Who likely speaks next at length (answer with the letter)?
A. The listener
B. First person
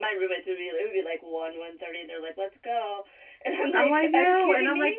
A